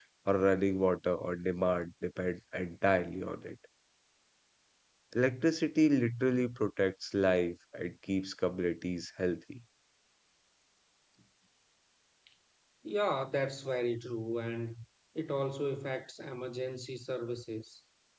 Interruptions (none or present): none